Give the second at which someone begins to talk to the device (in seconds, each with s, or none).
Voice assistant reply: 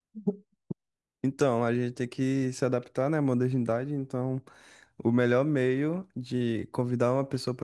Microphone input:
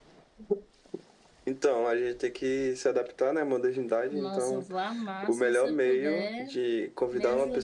4.1 s